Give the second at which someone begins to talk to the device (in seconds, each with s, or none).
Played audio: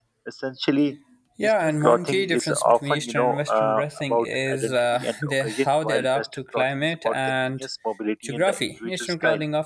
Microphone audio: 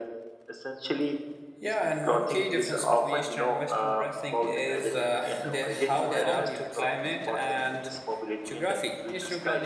6.1 s